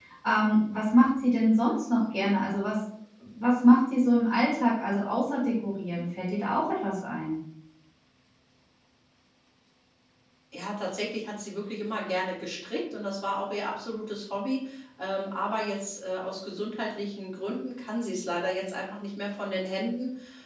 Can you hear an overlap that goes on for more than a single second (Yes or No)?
No